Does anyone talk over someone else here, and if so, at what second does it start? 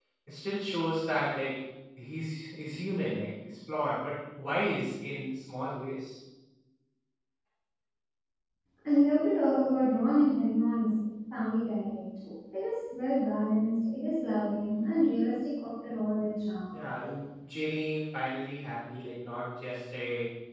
none

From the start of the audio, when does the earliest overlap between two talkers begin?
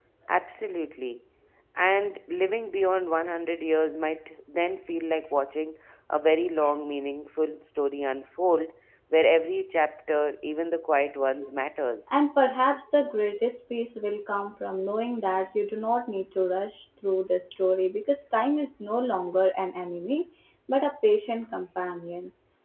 none

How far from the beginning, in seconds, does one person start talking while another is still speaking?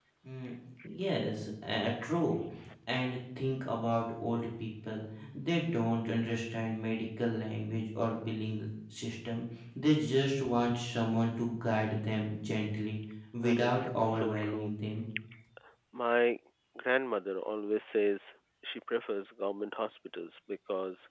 13.4 s

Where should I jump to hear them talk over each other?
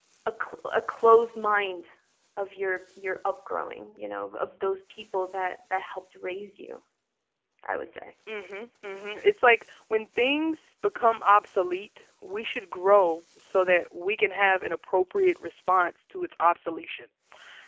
none

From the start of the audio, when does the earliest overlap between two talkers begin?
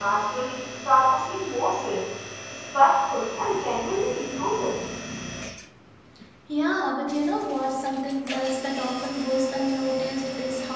none

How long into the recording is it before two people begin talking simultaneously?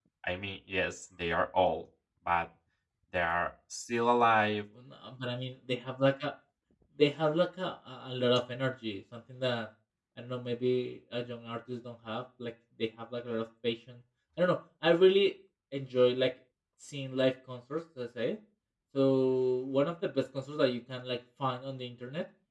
none

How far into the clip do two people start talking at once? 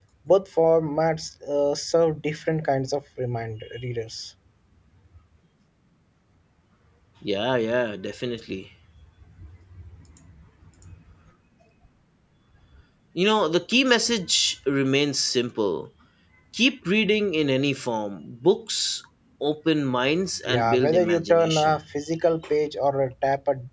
20.5 s

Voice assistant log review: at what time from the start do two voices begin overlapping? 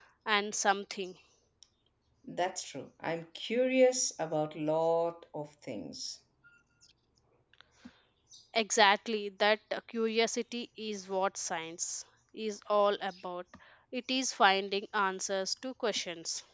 none

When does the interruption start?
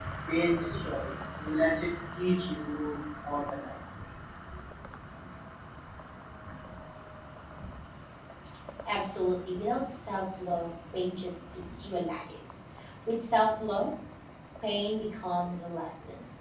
none

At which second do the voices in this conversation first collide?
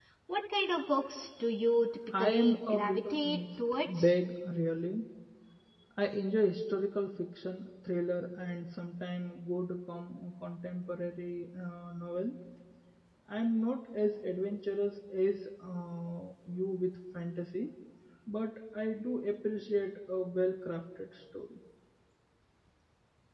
2.1 s

